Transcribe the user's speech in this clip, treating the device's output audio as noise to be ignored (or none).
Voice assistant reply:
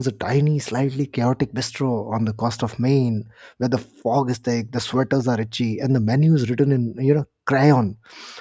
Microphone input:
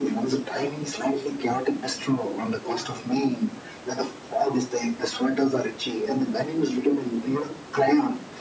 none